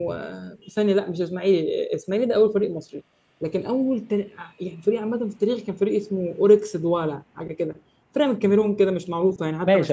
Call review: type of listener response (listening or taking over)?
taking over